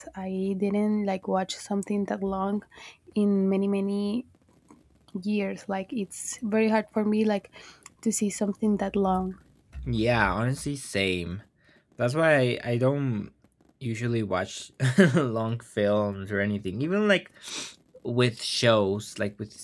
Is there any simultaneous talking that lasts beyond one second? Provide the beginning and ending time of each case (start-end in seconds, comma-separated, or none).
none